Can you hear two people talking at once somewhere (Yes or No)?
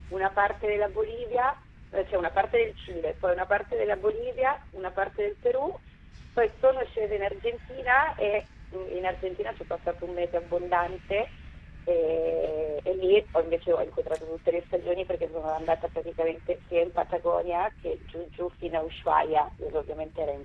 No